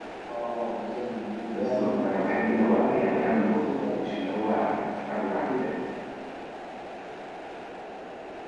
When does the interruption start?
1.4 s

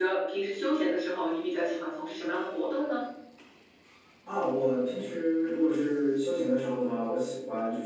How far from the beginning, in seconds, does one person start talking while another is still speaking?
none

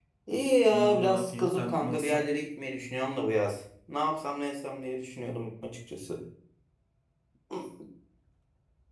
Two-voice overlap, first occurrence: 0.7 s

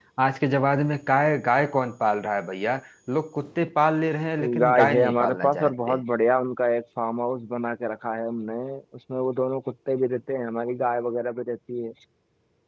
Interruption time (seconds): 4.4 s

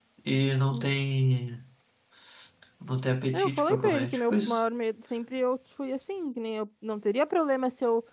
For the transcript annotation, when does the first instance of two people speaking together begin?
3.3 s

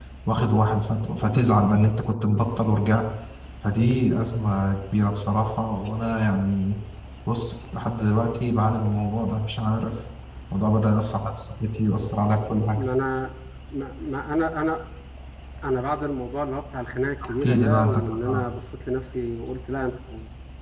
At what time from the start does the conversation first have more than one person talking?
17.2 s

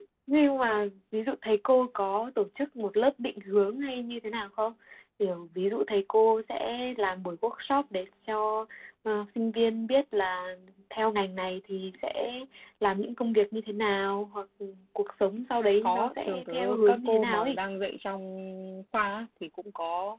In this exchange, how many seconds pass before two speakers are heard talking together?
15.8 s

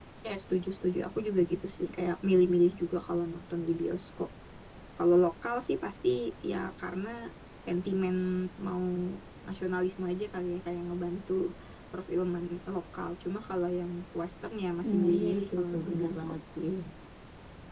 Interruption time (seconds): 14.8 s

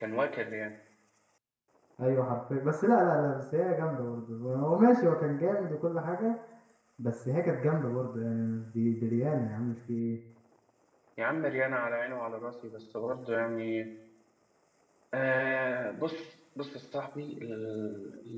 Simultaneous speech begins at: none

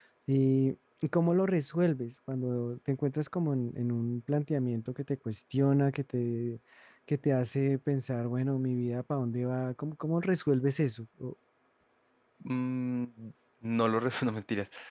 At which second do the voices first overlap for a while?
none

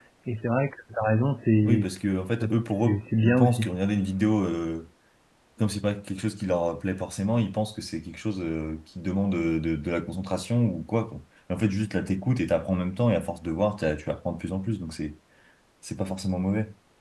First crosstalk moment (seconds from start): 1.6 s

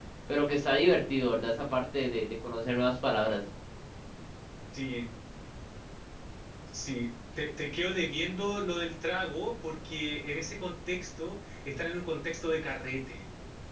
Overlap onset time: none

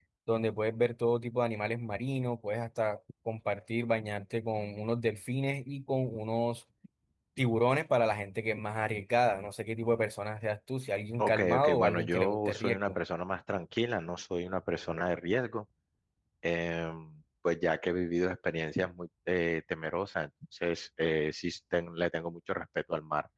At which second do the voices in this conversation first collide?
11.2 s

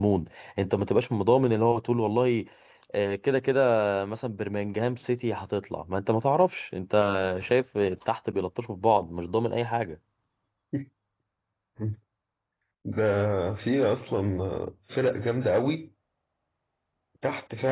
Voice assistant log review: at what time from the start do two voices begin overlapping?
none

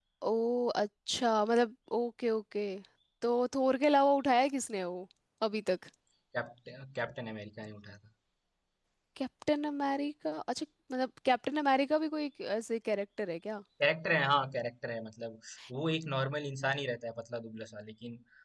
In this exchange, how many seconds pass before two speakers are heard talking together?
none

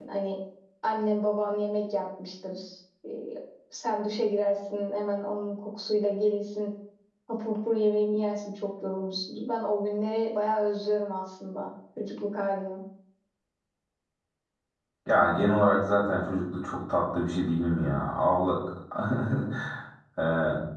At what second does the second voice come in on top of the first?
none

